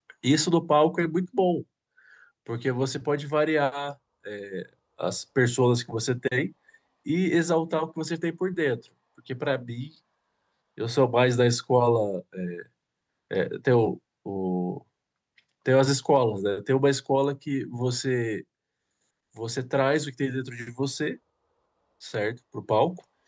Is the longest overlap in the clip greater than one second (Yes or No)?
No